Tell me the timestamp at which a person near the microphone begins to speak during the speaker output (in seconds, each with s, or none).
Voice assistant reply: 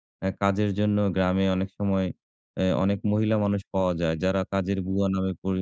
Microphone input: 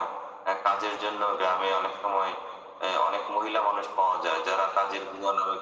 none